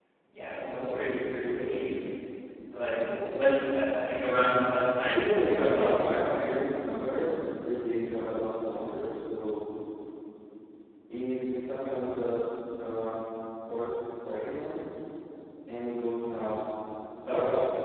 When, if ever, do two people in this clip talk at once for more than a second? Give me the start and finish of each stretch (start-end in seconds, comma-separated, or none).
5.1-6.6